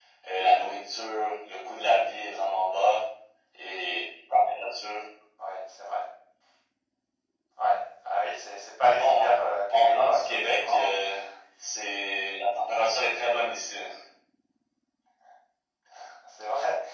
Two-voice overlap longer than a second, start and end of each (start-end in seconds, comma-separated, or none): 9.7-10.9